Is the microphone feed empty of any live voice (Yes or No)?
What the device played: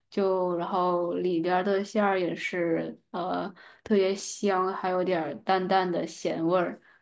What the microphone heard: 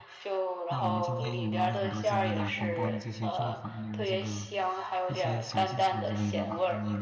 No